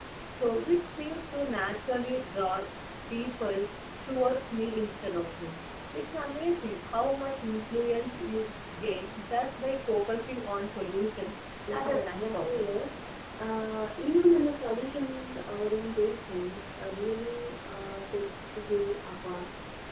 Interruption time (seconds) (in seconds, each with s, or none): 11.7 s